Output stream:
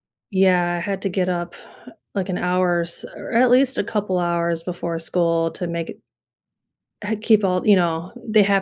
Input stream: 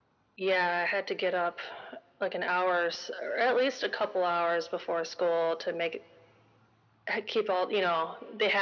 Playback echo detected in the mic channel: Yes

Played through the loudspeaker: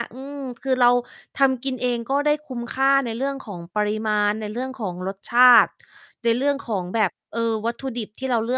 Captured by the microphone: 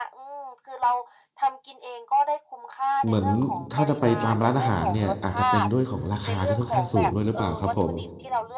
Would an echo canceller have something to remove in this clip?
Yes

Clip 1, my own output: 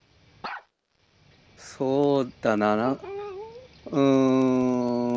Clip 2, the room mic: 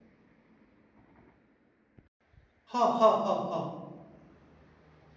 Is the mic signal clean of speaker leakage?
Yes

